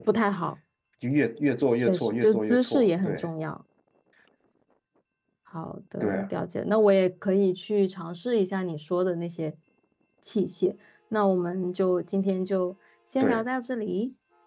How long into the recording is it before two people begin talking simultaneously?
1.8 s

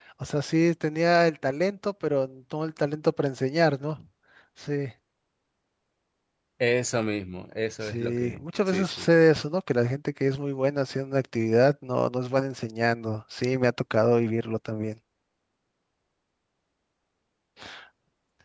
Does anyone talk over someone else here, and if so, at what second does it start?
7.8 s

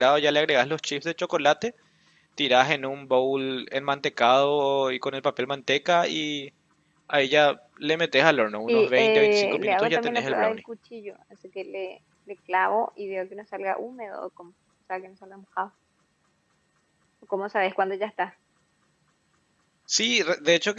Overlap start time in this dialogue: 8.7 s

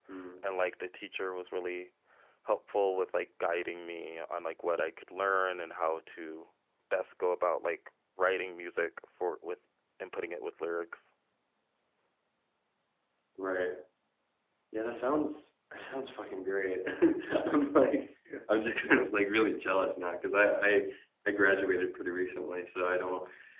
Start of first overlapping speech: none

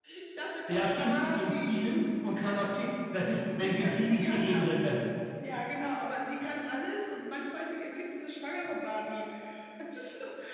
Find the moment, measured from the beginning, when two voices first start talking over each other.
0.7 s

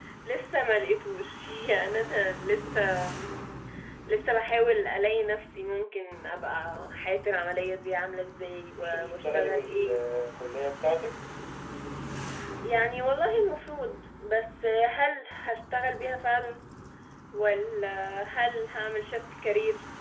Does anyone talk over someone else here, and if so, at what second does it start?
8.7 s

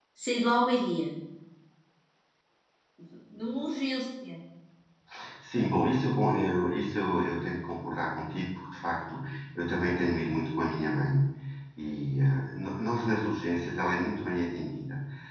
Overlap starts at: none

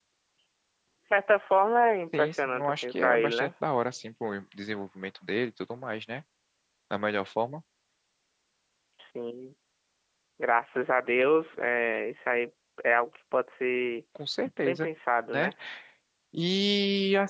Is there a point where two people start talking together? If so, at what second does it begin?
2.1 s

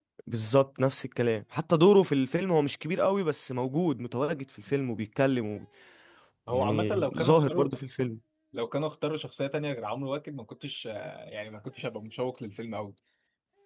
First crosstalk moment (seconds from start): 6.5 s

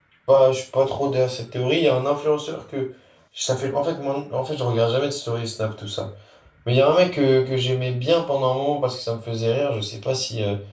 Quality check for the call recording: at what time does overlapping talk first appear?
none

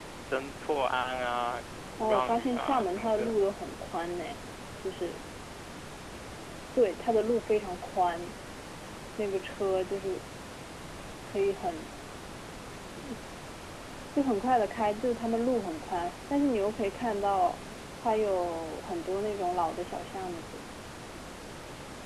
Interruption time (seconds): 2.0 s

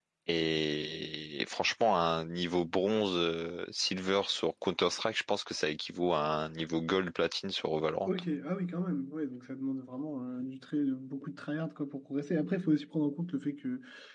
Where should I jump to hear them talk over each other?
none

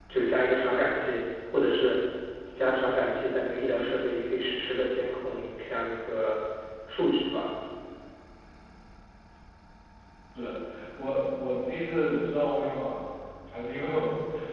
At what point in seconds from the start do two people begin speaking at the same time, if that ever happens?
none

